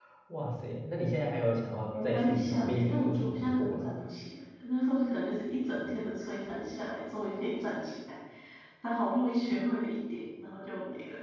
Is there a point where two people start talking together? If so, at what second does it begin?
1.9 s

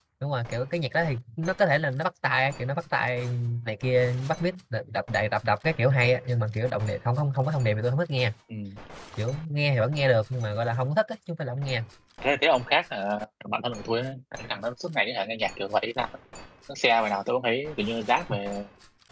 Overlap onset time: none

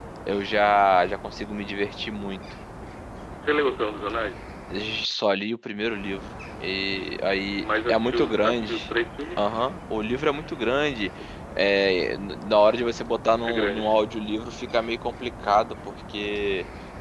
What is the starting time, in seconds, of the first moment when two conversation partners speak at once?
7.6 s

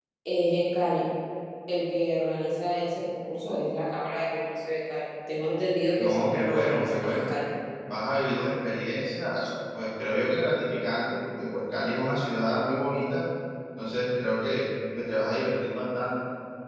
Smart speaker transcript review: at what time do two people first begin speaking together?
6.0 s

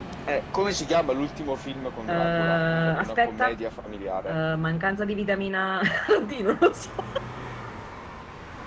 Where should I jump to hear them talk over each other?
2.1 s

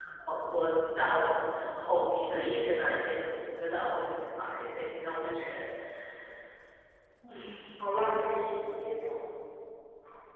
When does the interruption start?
none

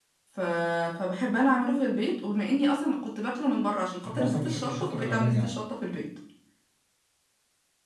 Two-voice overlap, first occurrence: 4.0 s

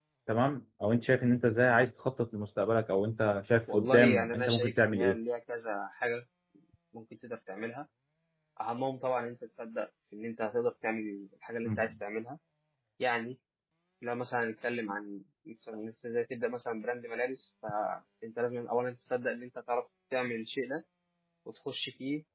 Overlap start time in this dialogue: 3.7 s

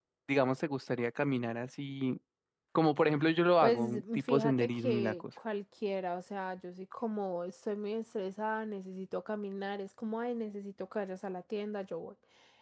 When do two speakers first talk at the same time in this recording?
3.6 s

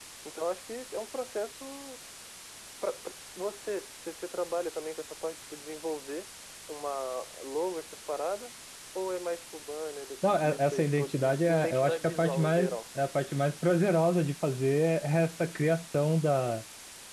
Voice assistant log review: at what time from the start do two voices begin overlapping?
10.2 s

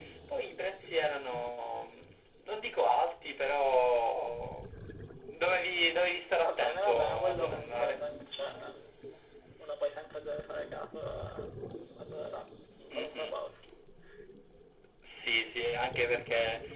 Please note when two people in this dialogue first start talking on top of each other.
6.5 s

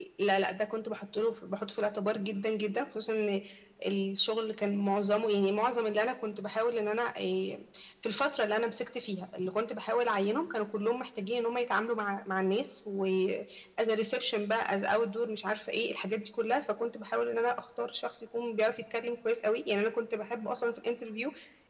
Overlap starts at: none

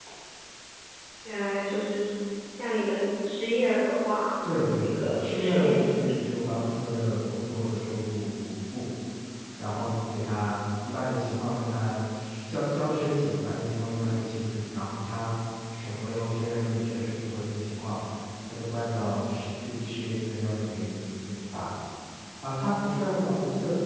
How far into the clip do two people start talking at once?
4.8 s

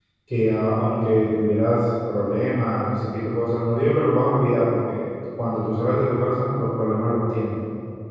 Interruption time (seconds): none

